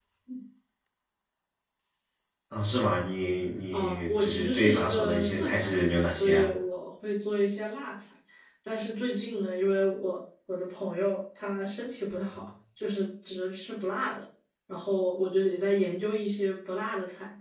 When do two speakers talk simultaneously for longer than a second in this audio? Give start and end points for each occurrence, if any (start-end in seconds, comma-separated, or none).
3.7-6.5